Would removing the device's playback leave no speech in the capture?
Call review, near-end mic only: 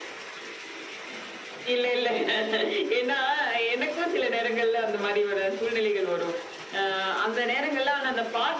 Yes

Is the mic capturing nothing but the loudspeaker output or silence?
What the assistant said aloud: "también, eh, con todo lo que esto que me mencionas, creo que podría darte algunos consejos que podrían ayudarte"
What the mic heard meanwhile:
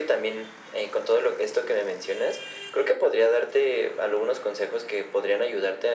Yes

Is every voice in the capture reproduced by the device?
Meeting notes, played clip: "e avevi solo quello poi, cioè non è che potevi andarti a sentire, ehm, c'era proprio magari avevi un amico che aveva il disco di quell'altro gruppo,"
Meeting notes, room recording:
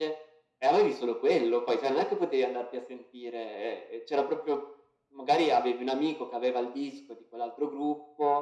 Yes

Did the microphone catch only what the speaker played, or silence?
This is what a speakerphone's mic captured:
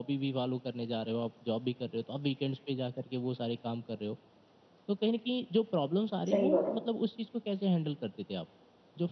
No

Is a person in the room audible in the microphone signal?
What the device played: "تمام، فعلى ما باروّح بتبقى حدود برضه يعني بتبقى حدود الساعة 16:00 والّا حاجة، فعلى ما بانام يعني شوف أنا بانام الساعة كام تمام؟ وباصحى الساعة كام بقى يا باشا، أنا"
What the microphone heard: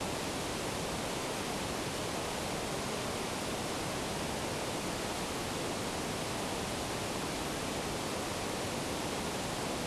No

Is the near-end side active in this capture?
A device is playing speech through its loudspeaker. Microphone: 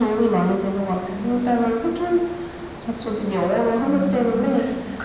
Yes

